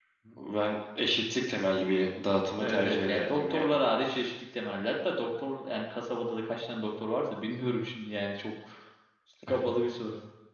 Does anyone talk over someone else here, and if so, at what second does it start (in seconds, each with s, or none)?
2.6 s